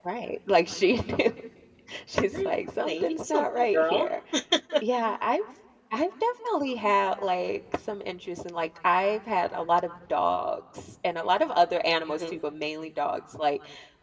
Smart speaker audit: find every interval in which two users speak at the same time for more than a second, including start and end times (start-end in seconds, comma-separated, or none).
2.3-4.1